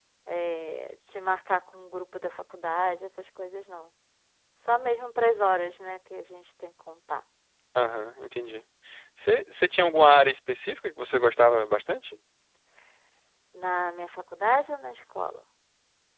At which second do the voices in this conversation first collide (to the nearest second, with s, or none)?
none